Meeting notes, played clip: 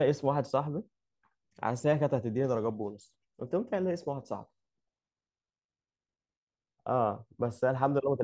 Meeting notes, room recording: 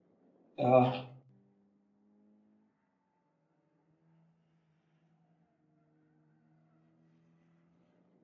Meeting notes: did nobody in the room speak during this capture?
No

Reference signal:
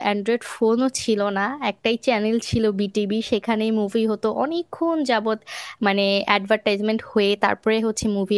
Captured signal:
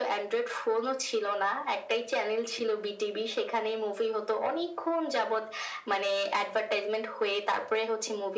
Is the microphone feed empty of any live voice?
Yes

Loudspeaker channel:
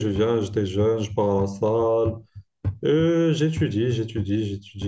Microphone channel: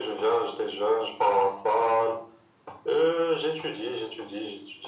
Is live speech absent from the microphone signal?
Yes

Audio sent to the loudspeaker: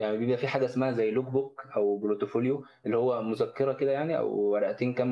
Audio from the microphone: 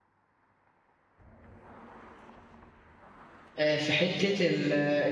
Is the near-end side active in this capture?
Yes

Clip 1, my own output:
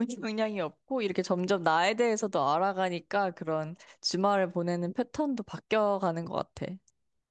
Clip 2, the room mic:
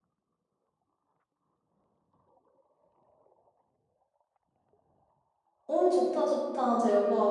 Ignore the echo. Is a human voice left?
Yes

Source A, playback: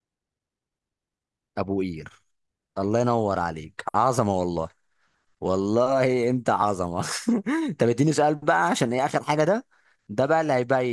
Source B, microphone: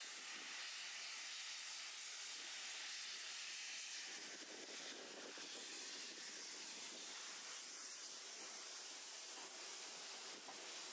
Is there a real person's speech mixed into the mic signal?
No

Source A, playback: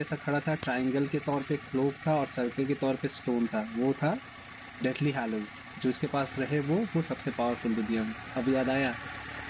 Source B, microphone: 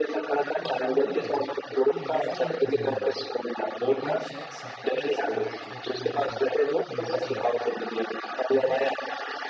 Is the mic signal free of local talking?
No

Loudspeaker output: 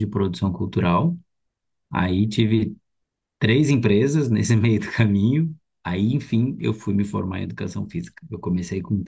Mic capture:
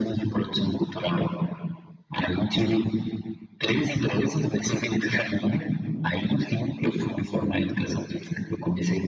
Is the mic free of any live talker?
Yes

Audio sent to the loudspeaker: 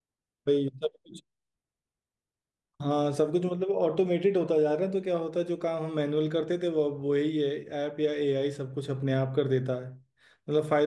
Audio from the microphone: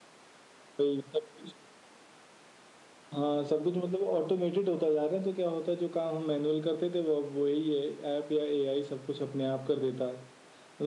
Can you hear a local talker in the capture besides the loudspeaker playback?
No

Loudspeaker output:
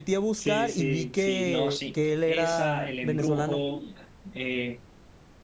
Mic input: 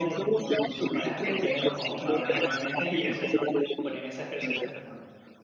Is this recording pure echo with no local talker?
No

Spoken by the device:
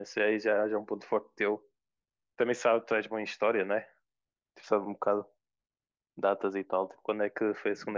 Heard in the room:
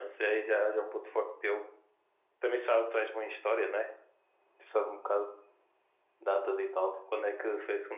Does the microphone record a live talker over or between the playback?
No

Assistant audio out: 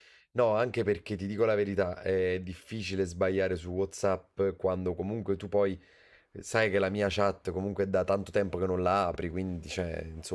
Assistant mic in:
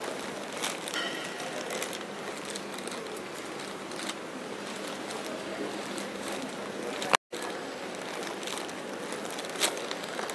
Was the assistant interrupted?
No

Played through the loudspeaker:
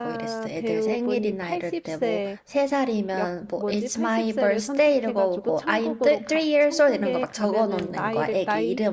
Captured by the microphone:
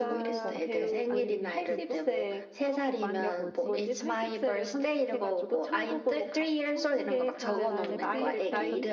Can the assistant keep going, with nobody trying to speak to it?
No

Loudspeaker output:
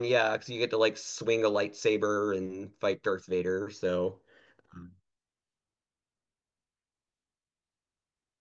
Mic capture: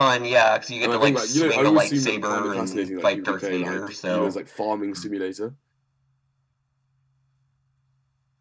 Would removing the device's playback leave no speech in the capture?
No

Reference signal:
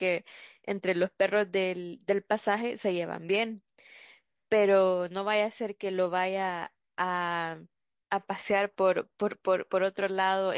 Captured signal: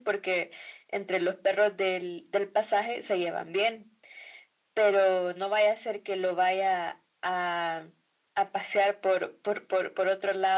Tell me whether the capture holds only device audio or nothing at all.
Yes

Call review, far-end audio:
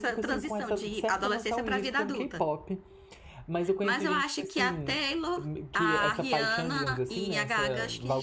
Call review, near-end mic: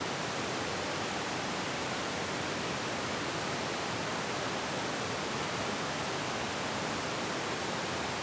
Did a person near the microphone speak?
No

